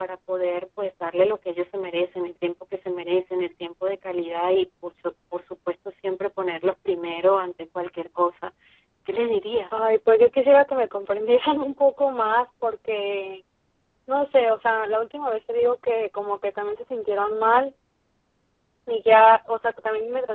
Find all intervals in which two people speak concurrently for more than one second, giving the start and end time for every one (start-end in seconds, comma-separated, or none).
none